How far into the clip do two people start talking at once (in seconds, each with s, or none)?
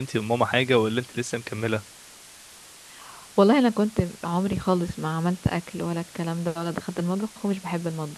none